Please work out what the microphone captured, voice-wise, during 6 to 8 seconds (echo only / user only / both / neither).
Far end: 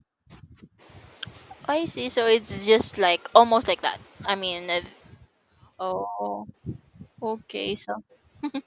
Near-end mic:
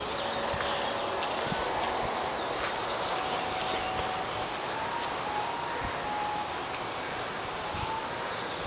neither